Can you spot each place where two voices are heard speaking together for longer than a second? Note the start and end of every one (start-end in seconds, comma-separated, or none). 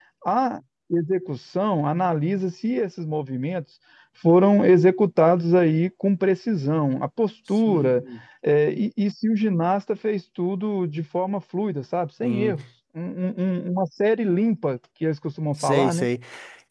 none